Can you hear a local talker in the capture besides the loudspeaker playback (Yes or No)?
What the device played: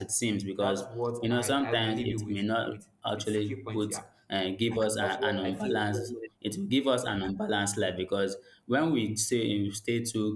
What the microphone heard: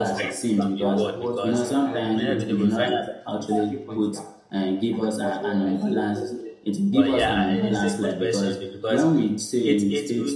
Yes